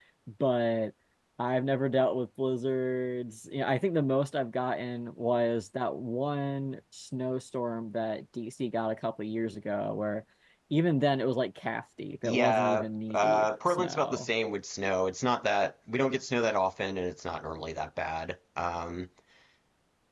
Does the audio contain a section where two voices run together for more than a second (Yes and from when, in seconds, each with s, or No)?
Yes, from 12.2 s